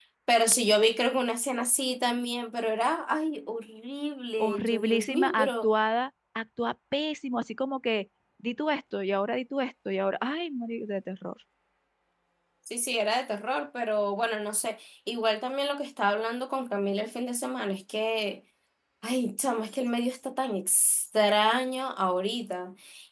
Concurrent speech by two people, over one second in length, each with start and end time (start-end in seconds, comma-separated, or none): 4.4-5.7